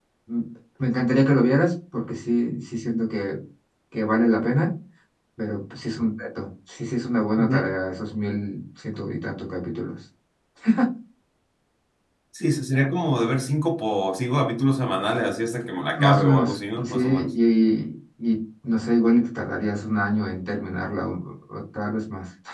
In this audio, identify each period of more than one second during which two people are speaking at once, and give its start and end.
16.0-17.3

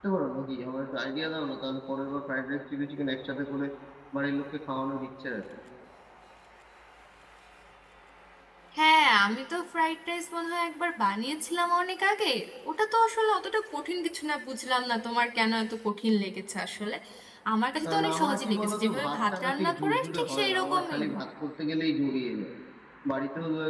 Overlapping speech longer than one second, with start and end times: 17.8-21.0

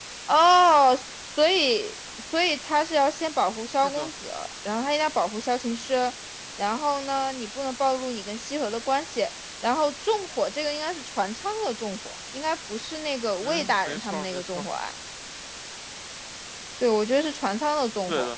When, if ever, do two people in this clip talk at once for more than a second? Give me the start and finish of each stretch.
13.4-14.6

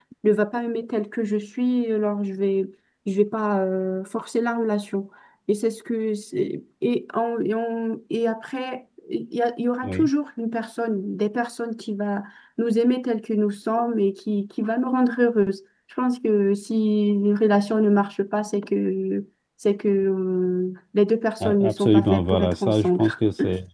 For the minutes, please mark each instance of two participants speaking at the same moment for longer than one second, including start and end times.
21.4-23.0

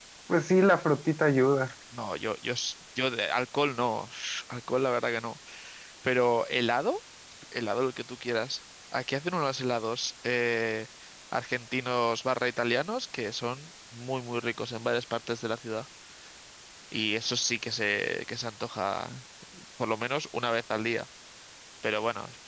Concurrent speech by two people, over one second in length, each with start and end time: none

